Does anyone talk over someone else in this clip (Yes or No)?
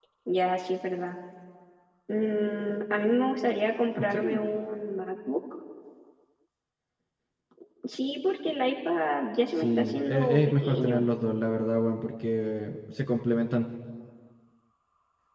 Yes